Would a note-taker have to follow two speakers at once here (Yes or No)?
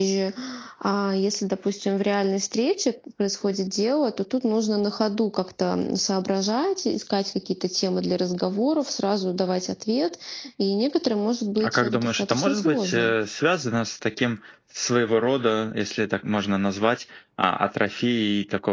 Yes